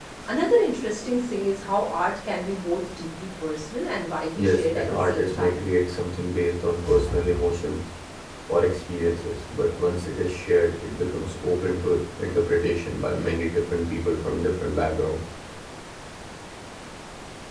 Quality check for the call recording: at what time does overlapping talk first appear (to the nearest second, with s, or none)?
4 s